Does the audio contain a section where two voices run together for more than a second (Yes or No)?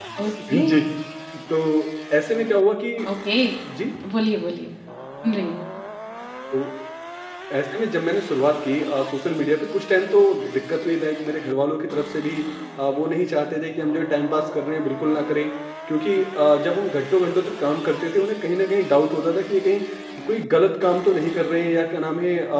No